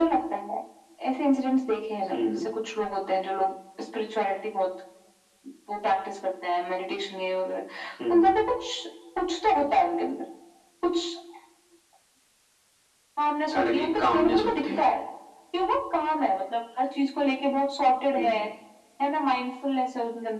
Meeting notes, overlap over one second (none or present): present